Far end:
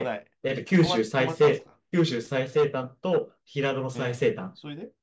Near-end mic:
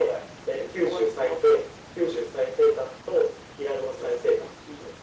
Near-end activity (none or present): none